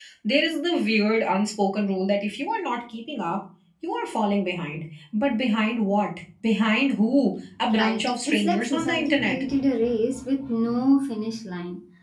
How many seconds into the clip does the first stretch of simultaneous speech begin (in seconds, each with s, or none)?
7.6 s